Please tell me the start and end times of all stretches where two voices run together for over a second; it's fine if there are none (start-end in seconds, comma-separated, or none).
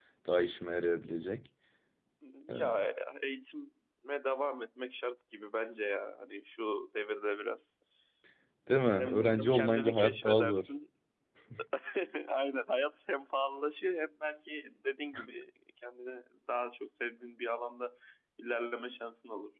8.9-10.7